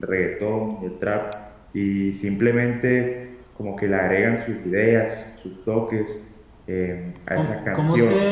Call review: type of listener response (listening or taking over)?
taking over